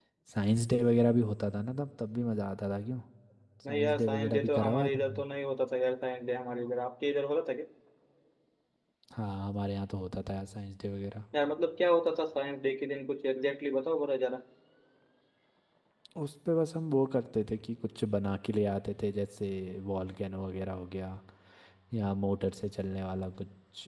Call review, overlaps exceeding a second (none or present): present